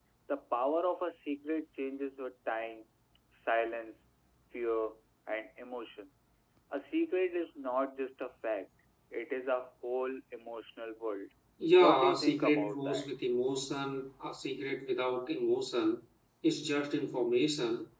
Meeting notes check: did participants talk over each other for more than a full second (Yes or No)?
Yes